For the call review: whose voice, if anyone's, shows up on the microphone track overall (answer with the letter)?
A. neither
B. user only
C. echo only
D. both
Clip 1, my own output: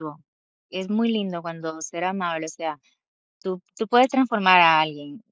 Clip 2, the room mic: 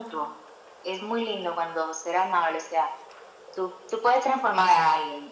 C